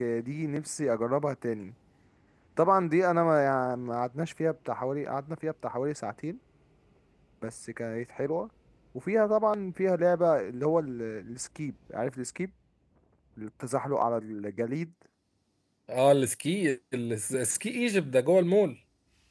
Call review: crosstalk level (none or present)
none